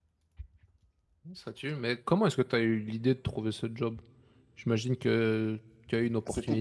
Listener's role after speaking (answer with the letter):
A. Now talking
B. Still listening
A